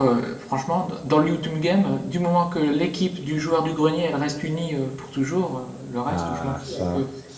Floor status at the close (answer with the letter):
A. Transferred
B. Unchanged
A